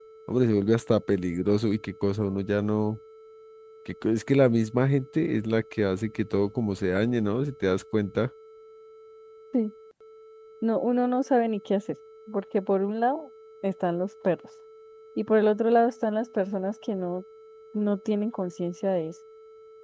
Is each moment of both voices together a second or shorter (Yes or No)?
Yes